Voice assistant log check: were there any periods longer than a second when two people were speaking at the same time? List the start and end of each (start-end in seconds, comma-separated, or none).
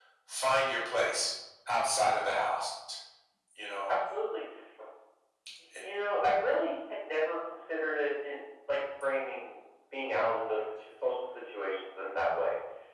none